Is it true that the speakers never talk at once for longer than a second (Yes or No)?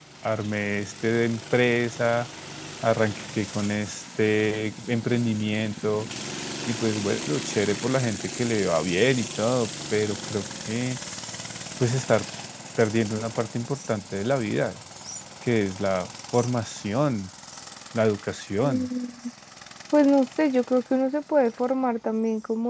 Yes